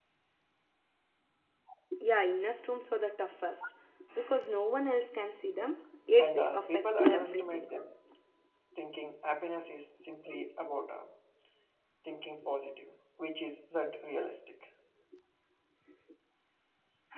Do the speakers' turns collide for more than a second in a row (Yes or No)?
Yes